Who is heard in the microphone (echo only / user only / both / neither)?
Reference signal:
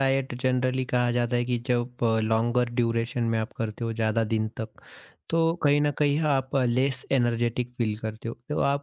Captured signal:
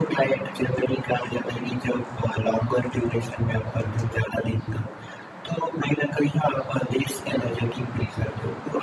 echo only